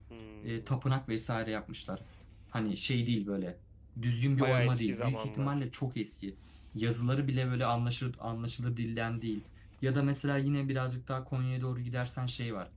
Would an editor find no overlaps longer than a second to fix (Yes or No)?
No